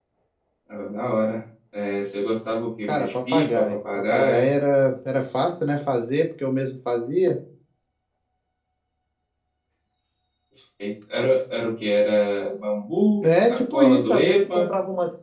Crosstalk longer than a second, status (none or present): present